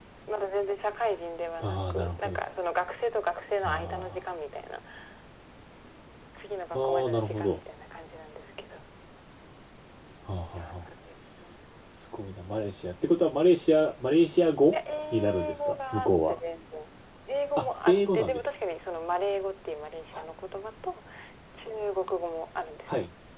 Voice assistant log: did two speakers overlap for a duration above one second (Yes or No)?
Yes